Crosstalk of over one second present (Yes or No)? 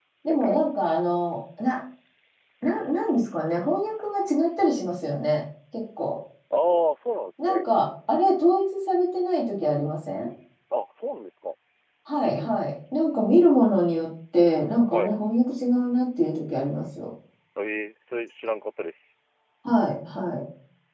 No